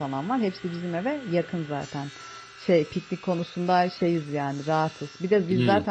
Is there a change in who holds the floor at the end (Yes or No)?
No